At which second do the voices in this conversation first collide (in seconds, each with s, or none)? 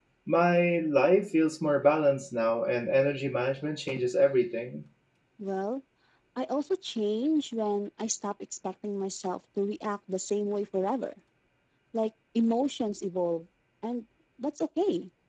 none